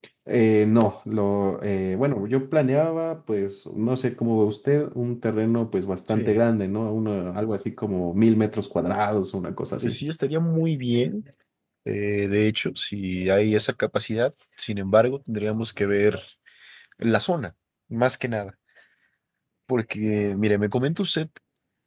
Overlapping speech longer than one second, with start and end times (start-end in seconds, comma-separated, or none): none